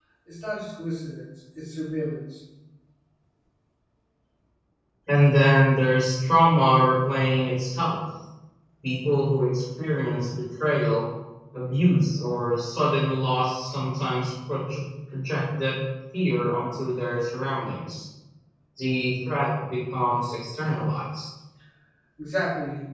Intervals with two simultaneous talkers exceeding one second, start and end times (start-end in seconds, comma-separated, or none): none